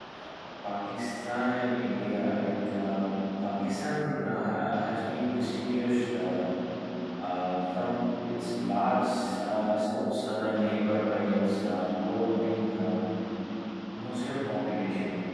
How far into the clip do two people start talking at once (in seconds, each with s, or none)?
none